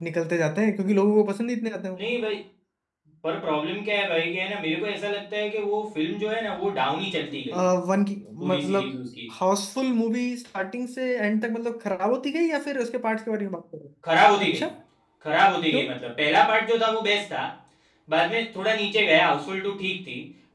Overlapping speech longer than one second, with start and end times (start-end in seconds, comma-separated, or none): none